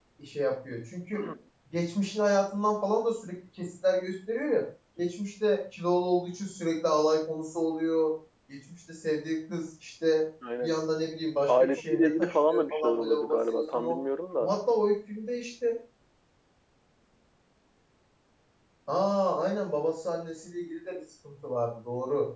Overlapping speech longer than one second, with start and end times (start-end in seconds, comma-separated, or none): 11.5-14.0